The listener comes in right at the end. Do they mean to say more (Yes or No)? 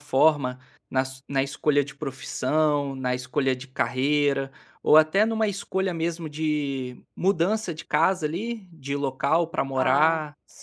Yes